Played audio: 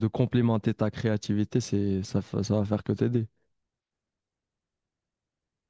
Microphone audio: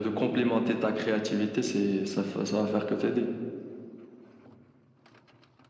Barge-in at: none

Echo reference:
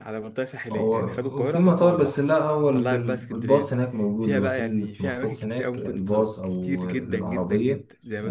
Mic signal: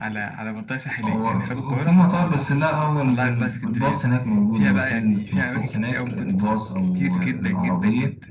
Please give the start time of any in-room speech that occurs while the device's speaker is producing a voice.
none

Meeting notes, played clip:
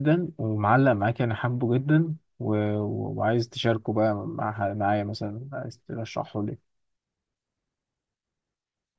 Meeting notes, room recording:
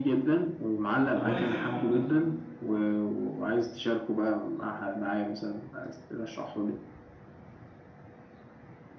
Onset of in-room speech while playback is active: 1.1 s

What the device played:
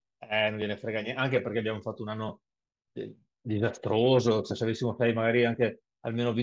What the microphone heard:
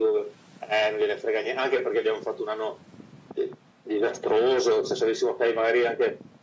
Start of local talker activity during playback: none

